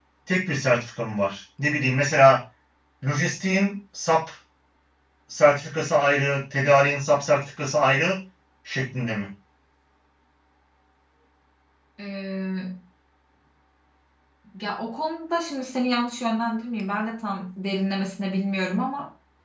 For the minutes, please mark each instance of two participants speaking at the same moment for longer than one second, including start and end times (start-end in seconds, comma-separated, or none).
none